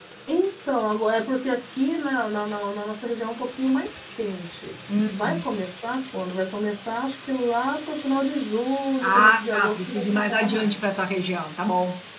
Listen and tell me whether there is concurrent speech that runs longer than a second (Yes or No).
Yes